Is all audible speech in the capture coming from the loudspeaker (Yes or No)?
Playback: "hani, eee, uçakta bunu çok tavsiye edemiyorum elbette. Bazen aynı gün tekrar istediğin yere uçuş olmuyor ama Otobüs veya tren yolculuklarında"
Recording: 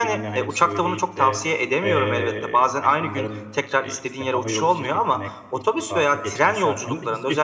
No